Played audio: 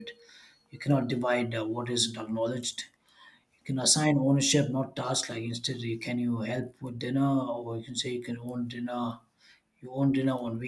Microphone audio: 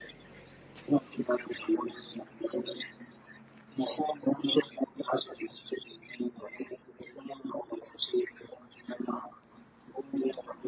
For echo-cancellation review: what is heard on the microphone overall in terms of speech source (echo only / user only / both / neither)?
echo only